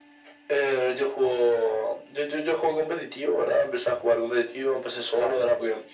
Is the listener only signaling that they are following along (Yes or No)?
Yes